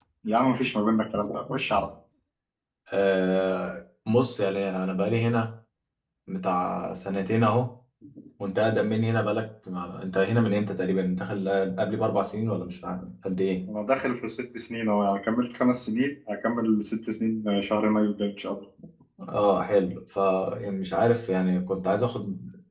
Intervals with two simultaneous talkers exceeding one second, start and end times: none

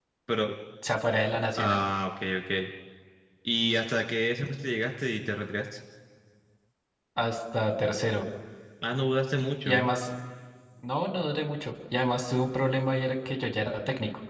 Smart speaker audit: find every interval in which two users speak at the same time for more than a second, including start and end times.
none

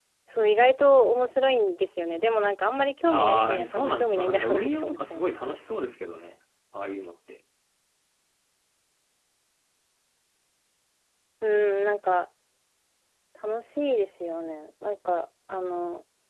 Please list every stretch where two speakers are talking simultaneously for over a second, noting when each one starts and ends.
3.1-5.5

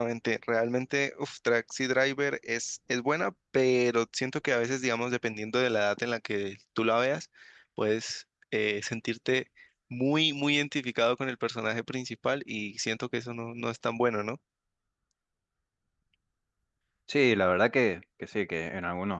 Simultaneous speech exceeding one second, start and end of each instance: none

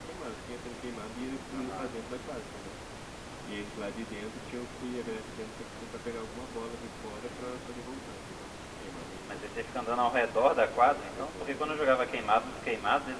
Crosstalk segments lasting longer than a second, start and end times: 10.7-12.2

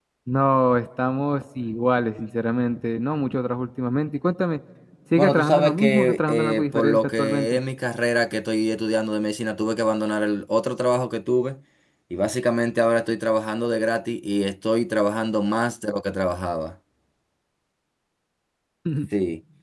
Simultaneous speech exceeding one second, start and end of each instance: 5.2-7.6

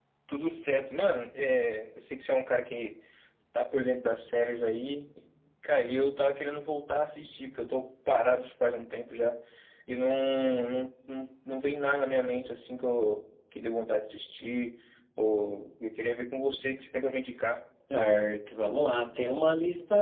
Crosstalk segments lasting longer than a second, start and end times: none

